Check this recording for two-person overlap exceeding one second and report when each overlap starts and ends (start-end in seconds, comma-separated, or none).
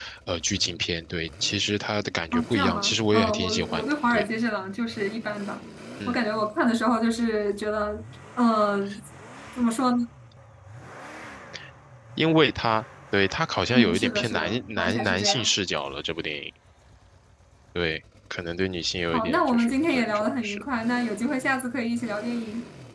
2.3-4.3, 13.7-15.5, 19.1-20.6